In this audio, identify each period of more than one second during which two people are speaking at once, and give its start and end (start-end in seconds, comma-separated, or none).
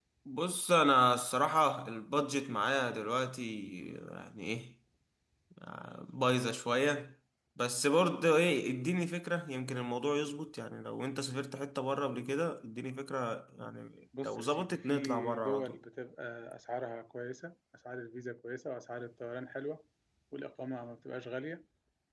14.2-15.8